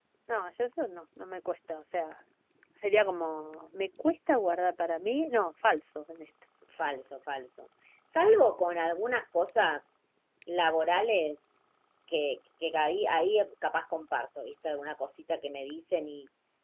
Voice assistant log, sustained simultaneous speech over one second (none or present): none